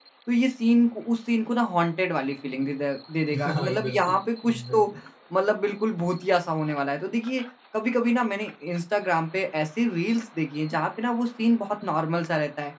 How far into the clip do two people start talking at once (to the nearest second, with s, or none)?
3 s